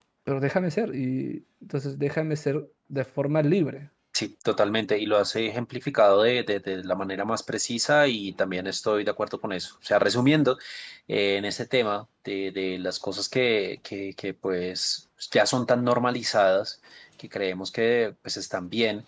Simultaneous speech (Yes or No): No